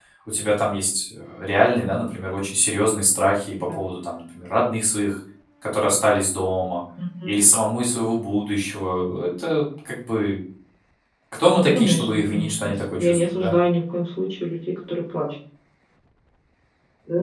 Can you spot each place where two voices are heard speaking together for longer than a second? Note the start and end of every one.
11.7-13.5

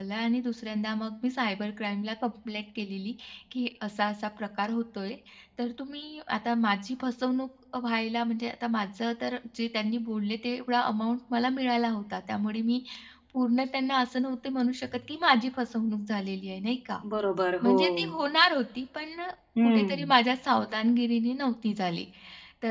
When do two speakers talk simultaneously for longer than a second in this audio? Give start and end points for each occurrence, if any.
none

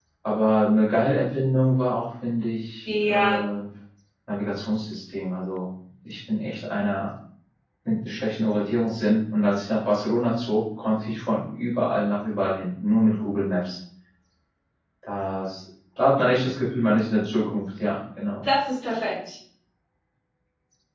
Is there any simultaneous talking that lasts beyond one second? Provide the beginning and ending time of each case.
none

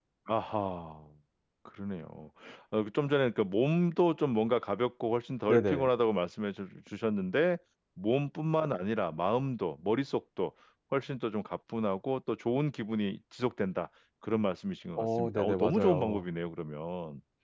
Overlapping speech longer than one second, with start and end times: 15.0-16.2

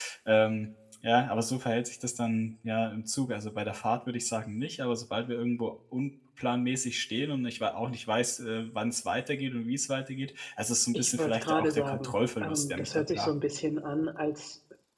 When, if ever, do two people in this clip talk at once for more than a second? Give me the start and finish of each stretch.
10.9-13.3

